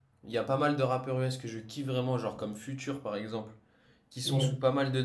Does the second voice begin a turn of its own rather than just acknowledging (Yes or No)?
No